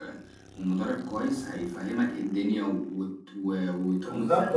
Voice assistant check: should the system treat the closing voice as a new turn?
Yes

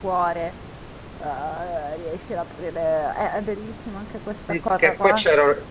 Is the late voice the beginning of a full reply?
Yes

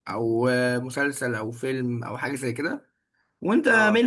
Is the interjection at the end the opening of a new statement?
No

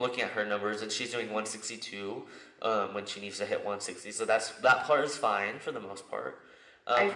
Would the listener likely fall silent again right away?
Yes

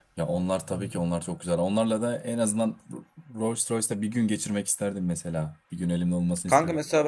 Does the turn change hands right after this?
Yes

